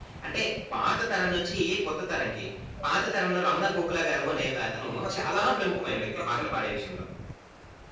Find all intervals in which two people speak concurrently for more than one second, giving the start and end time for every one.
4.9-6.5

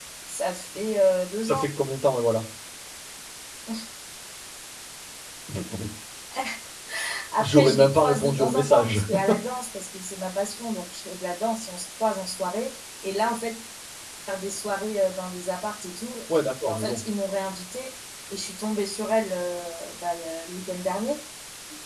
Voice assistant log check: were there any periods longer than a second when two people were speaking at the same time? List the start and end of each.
7.4-9.0

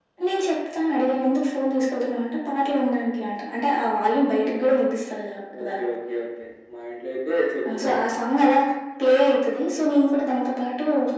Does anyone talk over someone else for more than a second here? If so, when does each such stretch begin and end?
none

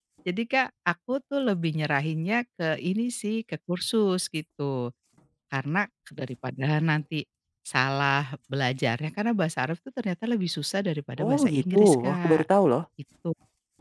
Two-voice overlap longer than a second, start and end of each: 11.2-12.4

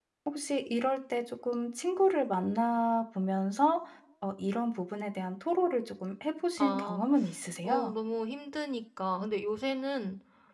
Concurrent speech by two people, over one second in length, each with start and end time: none

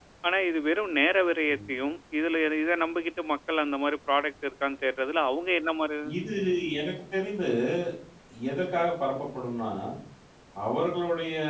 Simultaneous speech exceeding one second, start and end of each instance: none

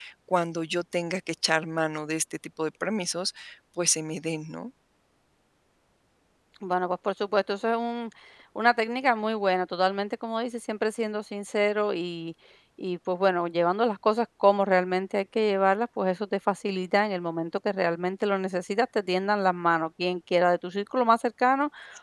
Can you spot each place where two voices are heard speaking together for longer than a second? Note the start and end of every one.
none

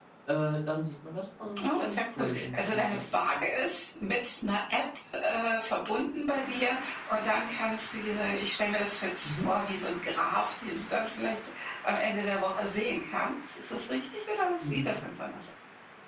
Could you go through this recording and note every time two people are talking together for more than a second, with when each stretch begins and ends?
1.6-3.4

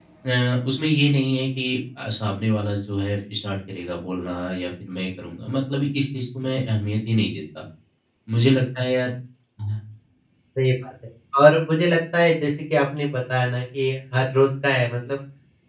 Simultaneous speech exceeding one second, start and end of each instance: none

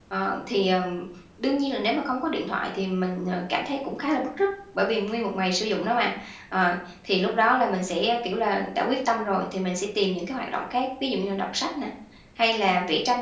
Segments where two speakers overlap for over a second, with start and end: none

